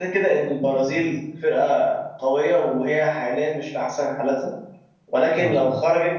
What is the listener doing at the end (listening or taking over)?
listening